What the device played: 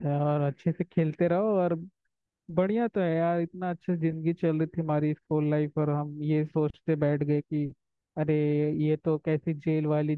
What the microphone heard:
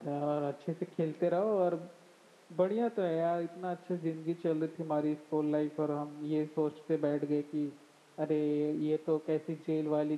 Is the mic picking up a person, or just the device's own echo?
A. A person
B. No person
B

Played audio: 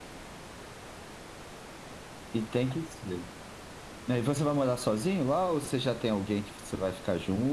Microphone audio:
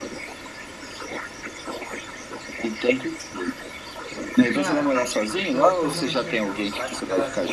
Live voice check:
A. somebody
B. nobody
A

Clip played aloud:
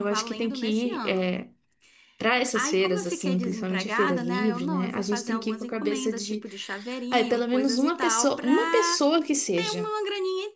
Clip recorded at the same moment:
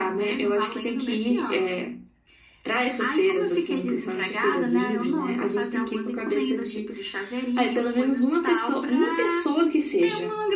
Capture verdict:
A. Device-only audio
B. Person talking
A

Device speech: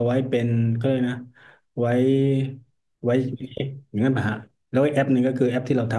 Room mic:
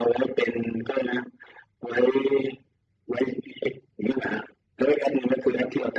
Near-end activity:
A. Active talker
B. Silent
B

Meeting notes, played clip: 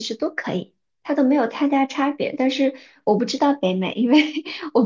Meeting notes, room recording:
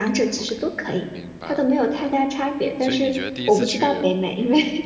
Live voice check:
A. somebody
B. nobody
A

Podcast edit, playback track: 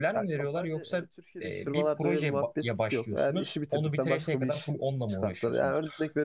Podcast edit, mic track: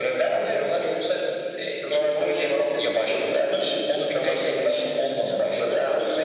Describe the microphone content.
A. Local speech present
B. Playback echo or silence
B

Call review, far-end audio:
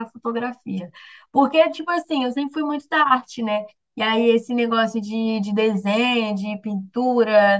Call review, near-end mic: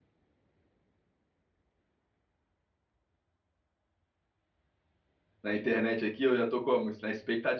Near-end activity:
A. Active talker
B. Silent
A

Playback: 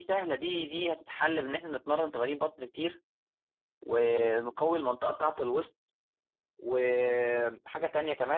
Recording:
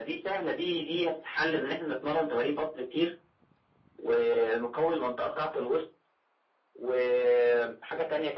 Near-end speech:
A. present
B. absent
B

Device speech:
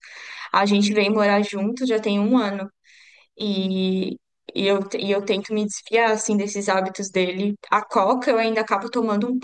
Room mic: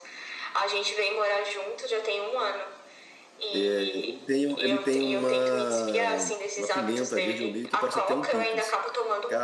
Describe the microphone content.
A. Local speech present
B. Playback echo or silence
A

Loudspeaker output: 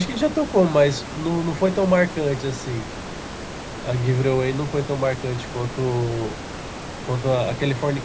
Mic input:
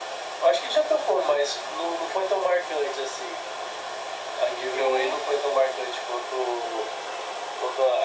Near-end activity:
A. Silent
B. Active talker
B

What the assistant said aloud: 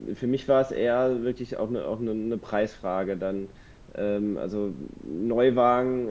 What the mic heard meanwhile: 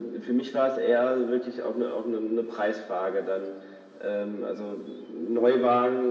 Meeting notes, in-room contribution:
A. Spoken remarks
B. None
B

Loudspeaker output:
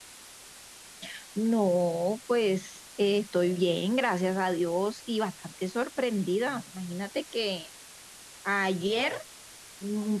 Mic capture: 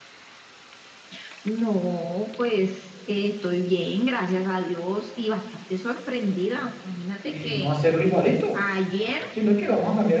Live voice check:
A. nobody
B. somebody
B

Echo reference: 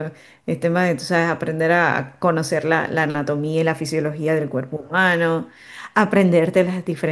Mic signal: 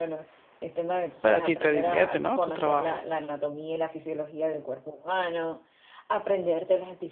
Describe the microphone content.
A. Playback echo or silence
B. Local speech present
B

